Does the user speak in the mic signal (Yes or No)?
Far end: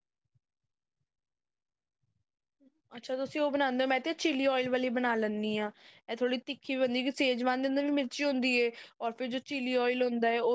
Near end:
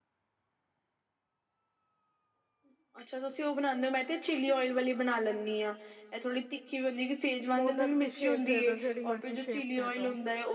Yes